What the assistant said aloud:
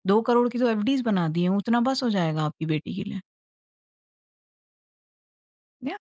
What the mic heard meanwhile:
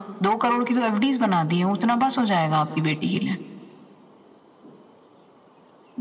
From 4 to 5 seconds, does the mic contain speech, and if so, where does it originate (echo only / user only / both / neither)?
neither